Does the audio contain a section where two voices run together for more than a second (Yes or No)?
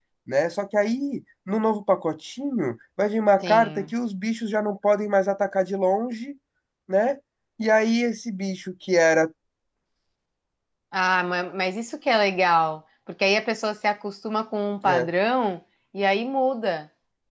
No